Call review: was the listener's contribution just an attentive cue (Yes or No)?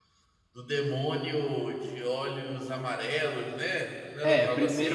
No